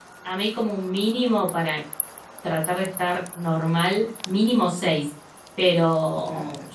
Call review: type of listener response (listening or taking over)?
listening